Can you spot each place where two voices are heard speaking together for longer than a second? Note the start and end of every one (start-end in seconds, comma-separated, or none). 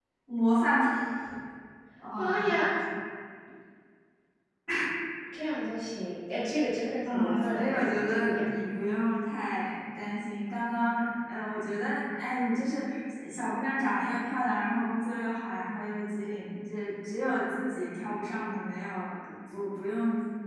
7.1-8.5